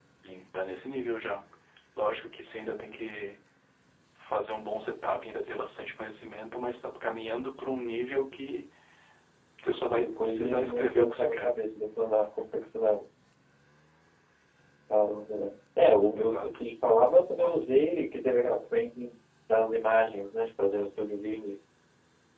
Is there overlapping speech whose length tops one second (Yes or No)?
Yes